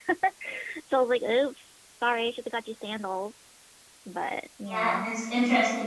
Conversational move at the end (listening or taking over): taking over